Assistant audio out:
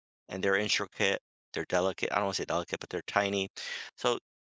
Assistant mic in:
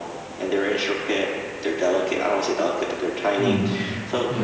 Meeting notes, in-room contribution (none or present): present